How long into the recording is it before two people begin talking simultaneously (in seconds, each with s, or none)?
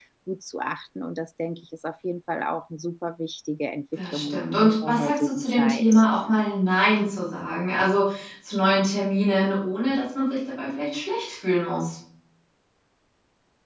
4.0 s